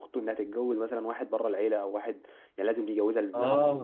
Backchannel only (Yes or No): No